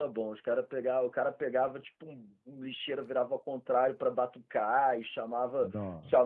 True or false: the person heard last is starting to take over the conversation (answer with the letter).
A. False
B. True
A